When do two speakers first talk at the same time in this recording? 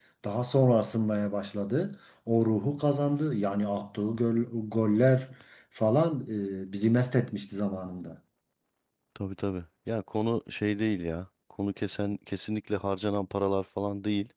none

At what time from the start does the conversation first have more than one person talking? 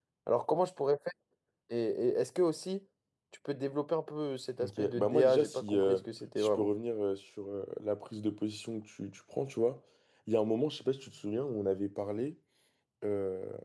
4.6 s

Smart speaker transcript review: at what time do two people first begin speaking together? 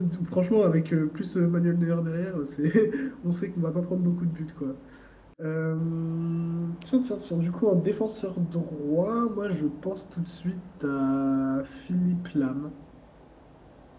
none

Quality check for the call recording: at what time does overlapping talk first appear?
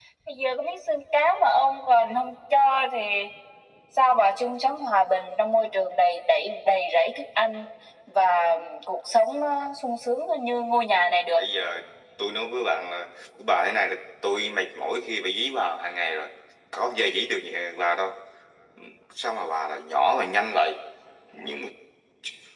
none

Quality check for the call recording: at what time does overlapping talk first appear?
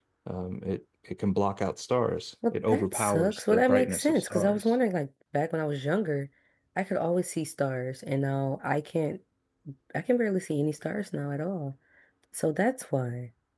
2.4 s

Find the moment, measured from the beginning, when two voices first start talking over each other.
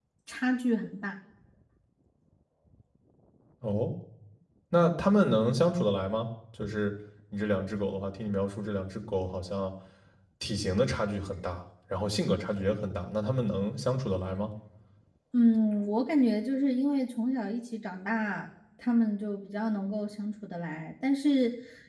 none

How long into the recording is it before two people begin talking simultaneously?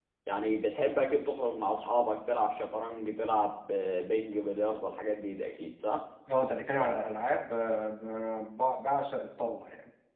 none

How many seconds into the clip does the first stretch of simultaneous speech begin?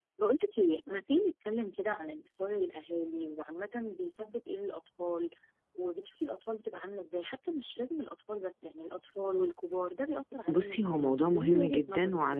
10.5 s

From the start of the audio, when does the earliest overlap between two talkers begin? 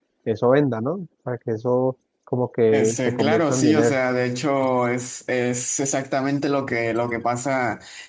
2.7 s

